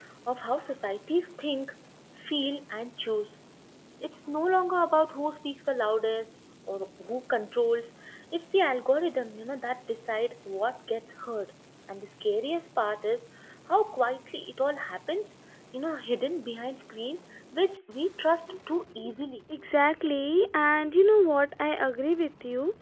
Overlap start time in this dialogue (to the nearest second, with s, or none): none